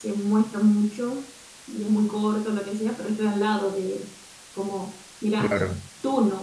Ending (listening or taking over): listening